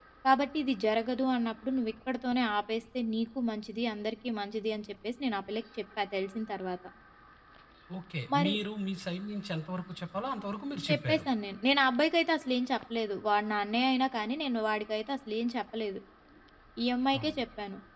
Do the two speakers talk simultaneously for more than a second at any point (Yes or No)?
No